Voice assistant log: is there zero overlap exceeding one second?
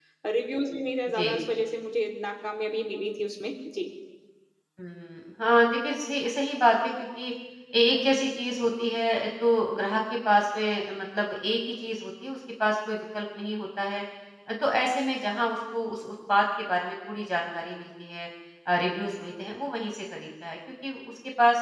Yes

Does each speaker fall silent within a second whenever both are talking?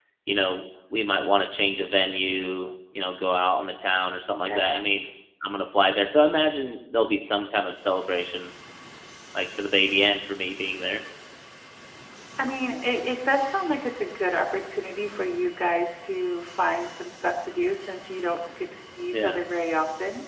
Yes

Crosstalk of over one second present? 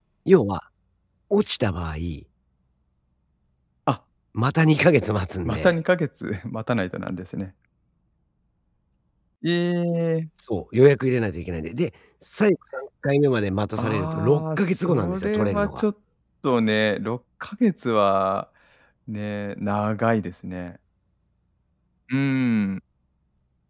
Yes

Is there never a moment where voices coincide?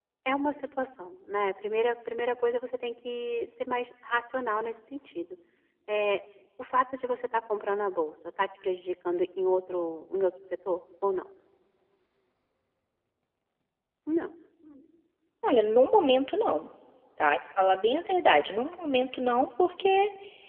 Yes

